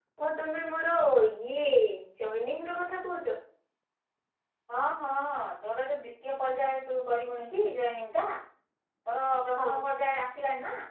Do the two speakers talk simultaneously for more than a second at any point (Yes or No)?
No